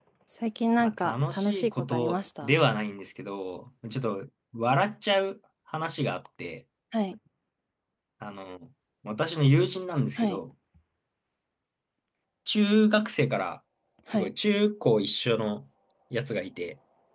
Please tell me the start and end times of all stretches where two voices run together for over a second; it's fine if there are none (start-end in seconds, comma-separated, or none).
0.8-2.6